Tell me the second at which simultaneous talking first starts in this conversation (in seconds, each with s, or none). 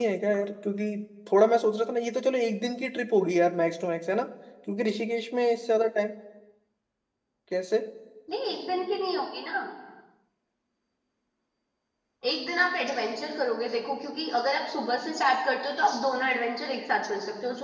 none